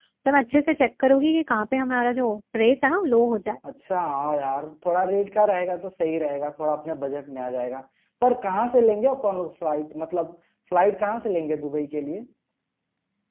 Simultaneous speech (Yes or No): No